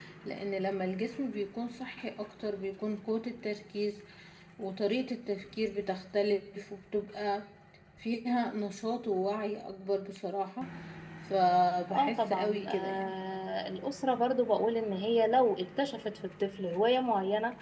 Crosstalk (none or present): present